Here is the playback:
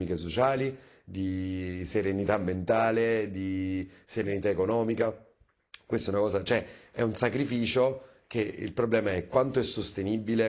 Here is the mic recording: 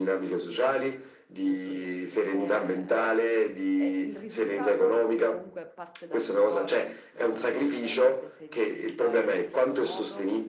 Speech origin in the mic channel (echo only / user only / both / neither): both